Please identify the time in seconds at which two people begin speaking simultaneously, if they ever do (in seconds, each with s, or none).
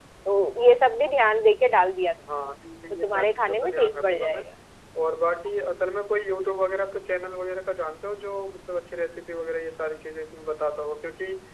2.9 s